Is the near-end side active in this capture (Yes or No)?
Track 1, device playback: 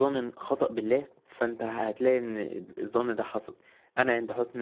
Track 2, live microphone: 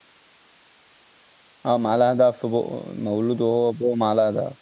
Yes